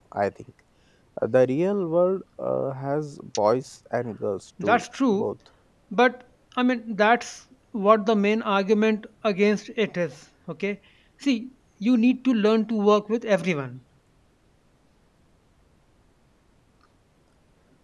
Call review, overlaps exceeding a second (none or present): none